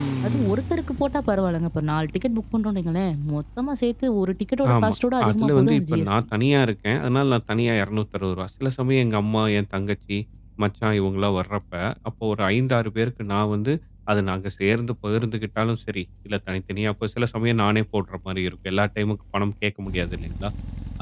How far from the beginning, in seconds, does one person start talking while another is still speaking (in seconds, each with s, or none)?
4.6 s